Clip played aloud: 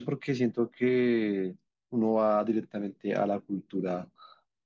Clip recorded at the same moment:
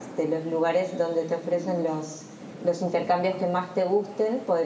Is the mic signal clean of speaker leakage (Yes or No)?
Yes